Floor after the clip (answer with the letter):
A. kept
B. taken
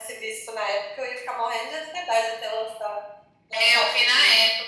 B